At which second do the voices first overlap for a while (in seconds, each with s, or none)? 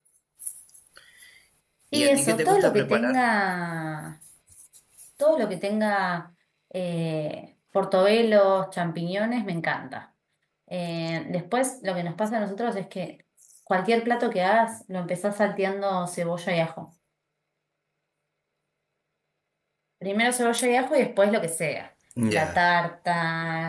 1.9 s